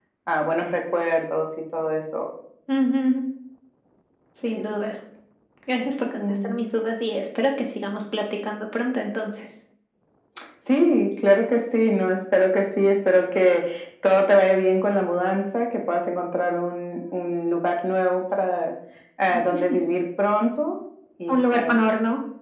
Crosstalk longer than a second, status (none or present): none